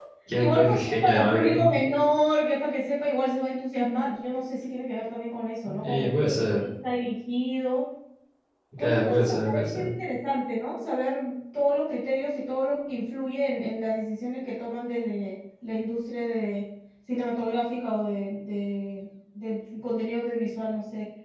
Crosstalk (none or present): present